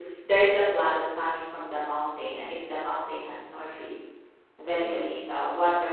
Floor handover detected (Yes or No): No